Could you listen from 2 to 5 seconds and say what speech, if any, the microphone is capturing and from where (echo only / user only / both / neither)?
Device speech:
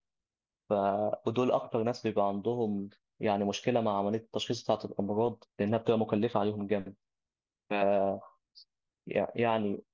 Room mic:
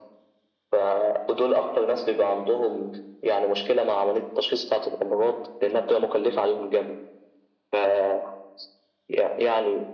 echo only